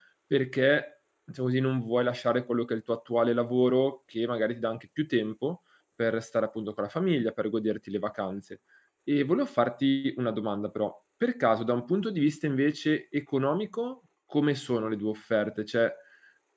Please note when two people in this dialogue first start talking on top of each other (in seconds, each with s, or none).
none